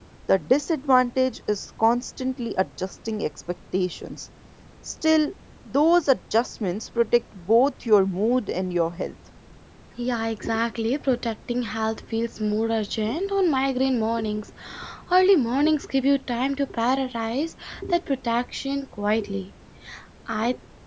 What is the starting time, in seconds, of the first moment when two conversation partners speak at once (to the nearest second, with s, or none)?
none